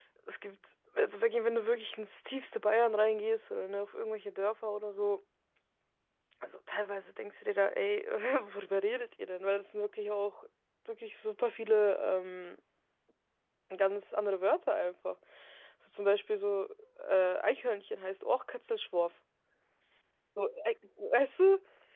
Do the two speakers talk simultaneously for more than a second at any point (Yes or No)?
No